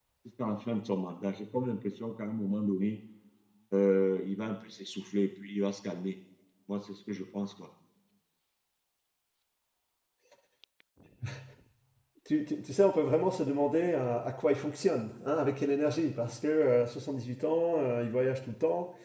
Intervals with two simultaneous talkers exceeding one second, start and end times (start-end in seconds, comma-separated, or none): none